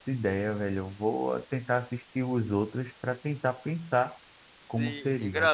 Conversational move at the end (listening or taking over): taking over